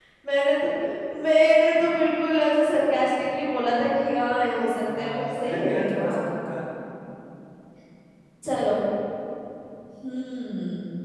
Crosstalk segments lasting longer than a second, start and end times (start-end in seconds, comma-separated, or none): 5.0-6.2